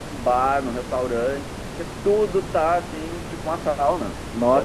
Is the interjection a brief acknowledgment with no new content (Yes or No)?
No